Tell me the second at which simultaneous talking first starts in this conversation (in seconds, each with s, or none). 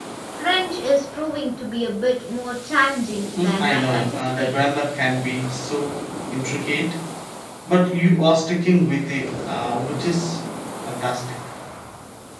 3.4 s